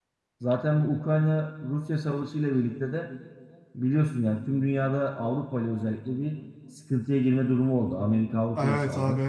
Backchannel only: No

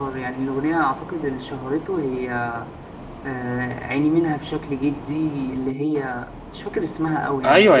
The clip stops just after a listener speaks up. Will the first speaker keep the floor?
No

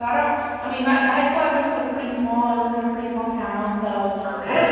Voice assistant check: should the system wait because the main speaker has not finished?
Yes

